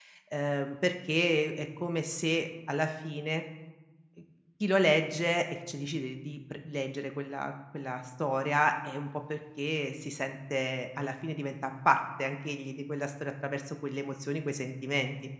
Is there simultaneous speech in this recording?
No

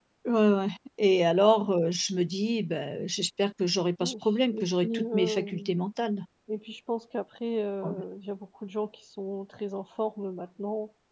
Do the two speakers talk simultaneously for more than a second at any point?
Yes, from 4.0 s

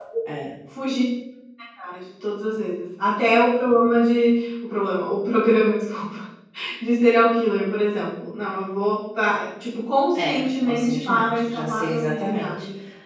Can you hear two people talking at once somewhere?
Yes, from 10.2 s

